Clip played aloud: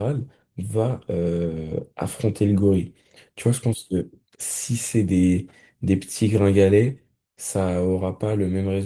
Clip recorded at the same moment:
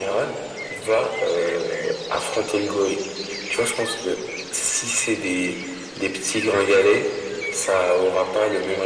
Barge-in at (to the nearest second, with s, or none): none